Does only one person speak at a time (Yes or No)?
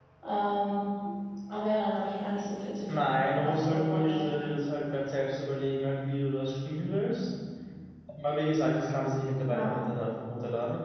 No